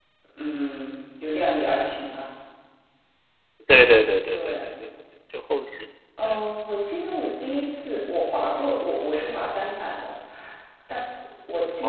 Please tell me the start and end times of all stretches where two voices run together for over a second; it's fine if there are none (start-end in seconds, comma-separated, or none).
none